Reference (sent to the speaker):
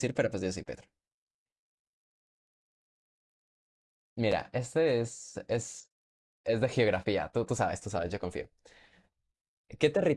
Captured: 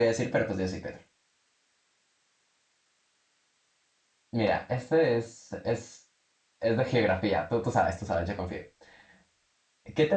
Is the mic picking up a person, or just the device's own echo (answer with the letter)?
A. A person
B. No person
B